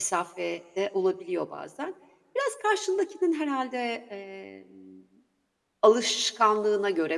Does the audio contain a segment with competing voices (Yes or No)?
No